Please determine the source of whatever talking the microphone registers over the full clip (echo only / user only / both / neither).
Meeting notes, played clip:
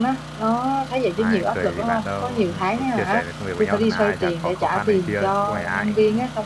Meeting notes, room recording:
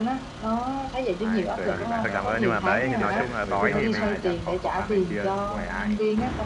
both